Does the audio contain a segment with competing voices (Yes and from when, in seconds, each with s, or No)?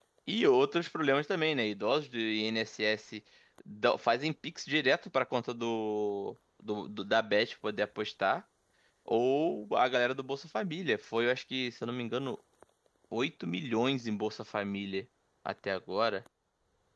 No